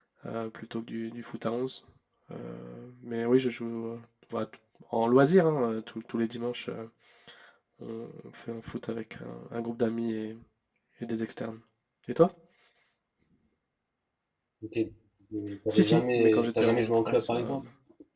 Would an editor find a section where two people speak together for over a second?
Yes, from 15.7 s

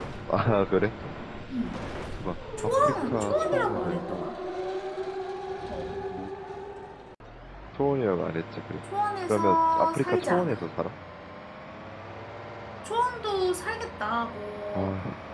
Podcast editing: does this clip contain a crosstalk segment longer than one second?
Yes, from 2.8 s

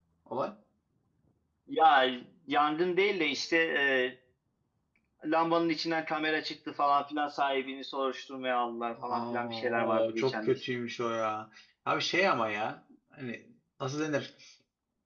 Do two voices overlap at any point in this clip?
Yes, from 9.0 s

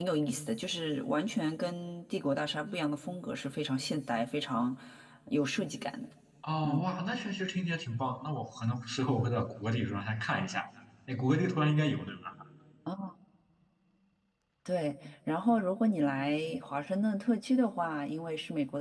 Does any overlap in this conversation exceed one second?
No

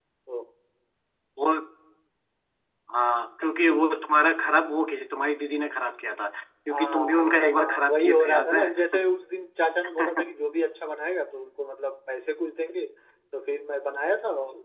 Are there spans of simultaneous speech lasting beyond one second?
Yes, from 6.7 s

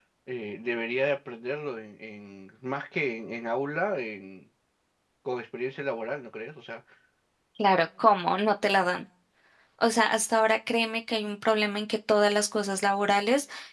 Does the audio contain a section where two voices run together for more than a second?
No

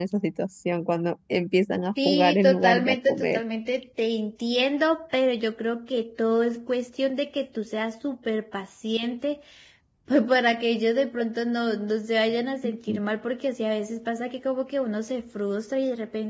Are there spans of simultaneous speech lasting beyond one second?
Yes, from 2.0 s

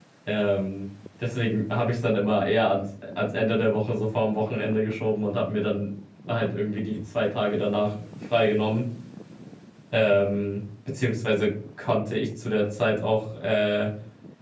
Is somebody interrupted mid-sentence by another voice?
No

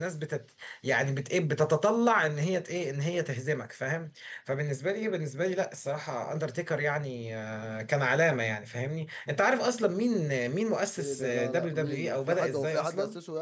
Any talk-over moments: Yes, from 11.0 s

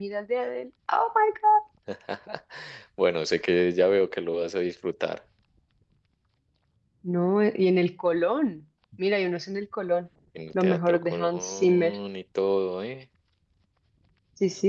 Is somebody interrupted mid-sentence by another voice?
Yes, from 10.6 s

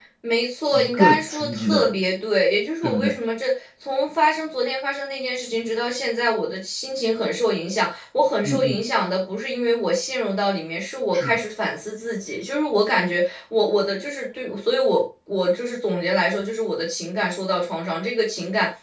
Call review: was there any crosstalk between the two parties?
Yes, from 0.7 s

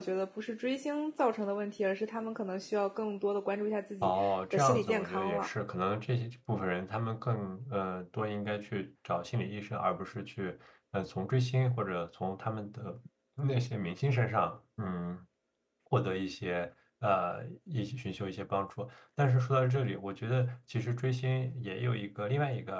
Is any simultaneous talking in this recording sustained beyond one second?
Yes, from 4.0 s

